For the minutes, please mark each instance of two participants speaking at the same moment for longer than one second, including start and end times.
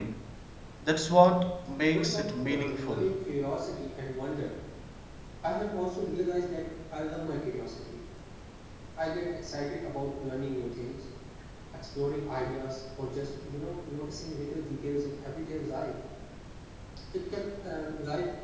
1.9-3.1

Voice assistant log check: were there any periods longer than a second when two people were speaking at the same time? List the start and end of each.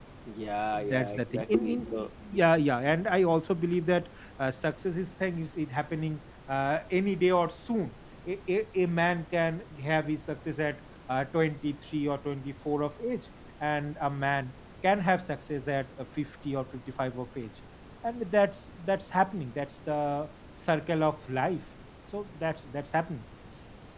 0.9-2.1

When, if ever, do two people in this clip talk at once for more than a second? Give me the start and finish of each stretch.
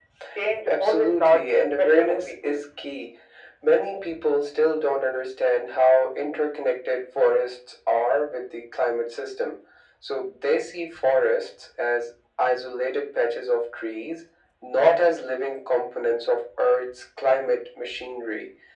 0.7-2.6

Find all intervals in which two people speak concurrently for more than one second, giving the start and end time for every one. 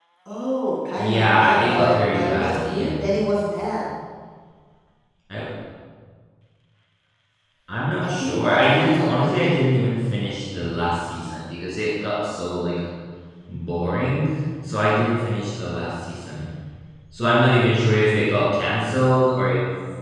1.0-3.1, 8.0-9.6

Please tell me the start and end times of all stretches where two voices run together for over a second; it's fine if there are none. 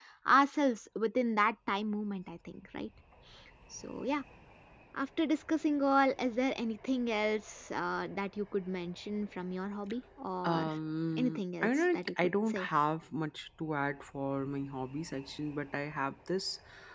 11.2-12.7

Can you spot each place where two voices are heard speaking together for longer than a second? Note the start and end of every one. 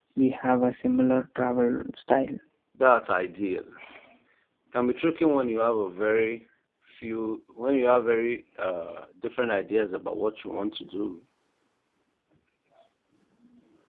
none

